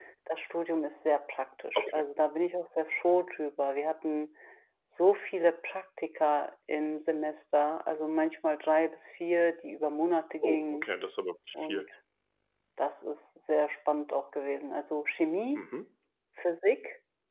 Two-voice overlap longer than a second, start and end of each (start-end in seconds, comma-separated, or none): none